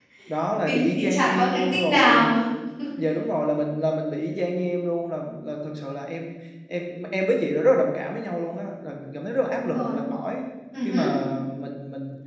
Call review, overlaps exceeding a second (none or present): present